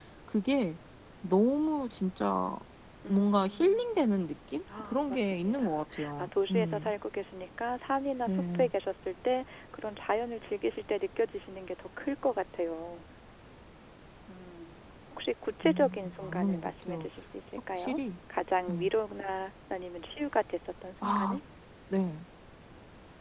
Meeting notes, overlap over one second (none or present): present